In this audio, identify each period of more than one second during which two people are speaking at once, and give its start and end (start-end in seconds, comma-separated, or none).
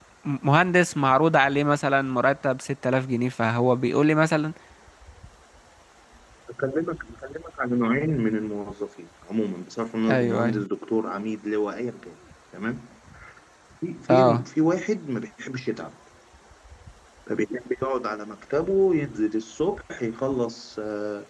none